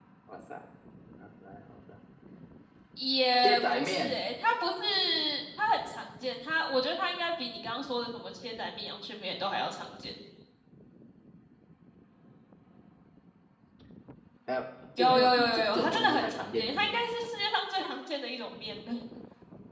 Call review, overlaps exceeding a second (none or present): present